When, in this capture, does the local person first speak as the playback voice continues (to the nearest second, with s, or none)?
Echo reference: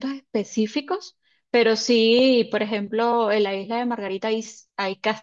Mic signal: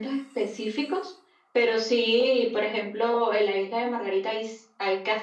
none